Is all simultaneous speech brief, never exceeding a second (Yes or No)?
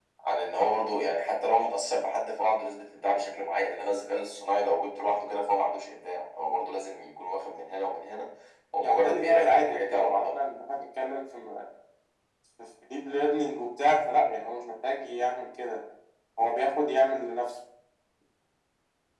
No